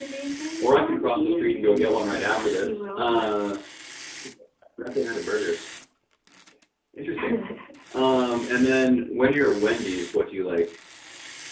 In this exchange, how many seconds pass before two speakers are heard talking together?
0.6 s

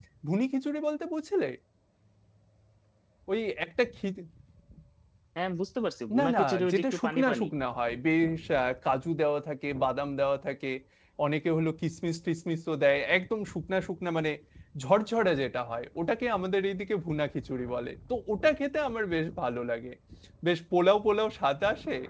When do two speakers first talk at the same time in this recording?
6.2 s

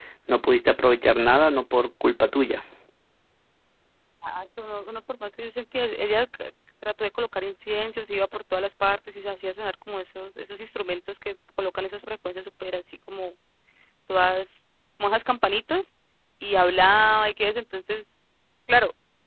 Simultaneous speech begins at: none

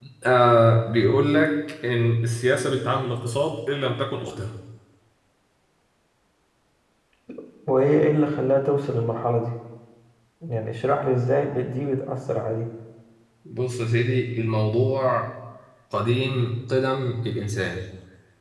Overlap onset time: none

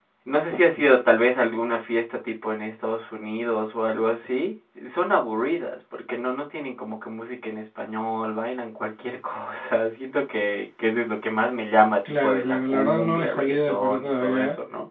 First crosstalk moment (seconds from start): 12.1 s

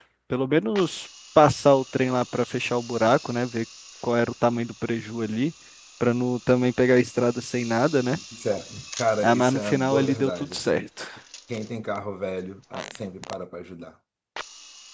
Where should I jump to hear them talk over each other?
9.2 s

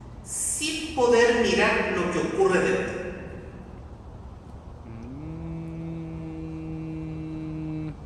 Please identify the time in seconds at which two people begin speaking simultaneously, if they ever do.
none

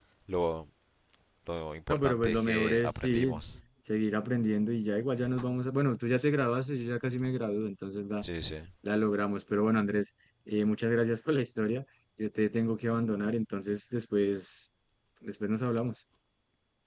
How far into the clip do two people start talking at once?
1.9 s

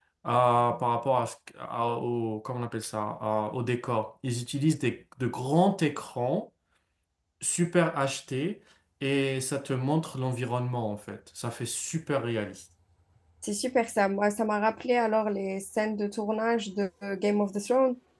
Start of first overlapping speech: none

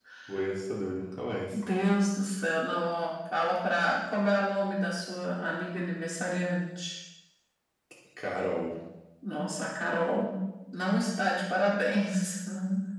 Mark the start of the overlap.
none

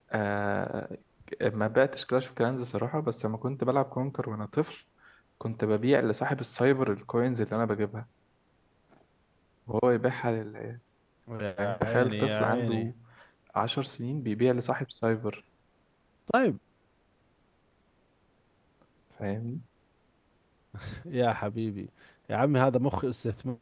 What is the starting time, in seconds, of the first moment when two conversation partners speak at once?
11.6 s

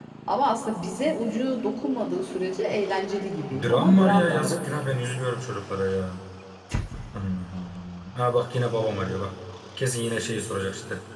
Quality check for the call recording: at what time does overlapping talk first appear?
3.4 s

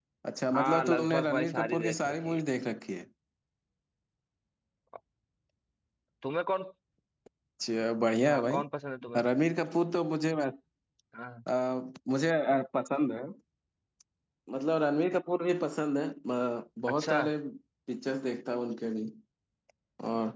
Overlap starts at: 0.5 s

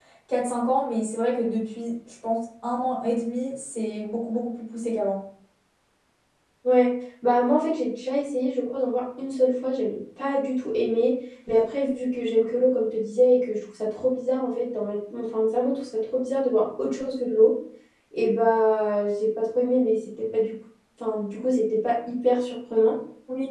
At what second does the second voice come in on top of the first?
none

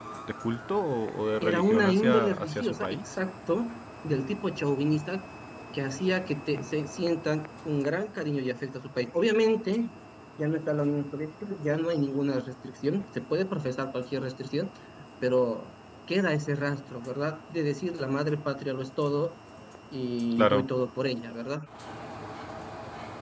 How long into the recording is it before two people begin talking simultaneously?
1.4 s

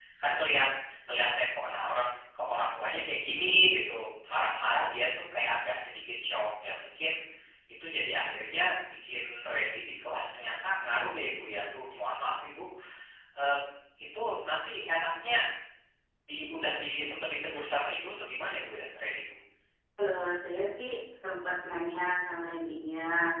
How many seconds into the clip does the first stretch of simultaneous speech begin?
none

